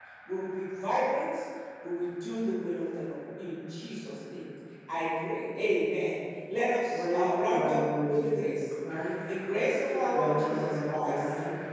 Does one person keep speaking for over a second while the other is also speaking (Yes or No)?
Yes